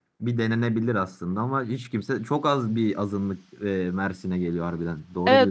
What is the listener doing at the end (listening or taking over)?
taking over